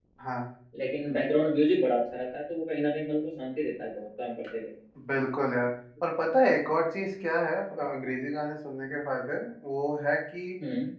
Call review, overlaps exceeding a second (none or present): none